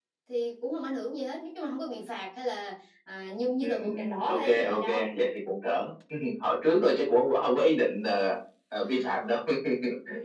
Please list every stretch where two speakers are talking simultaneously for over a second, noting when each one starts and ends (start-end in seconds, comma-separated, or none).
3.6-5.0